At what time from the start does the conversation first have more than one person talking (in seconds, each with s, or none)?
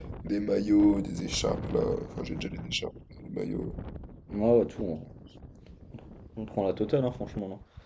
none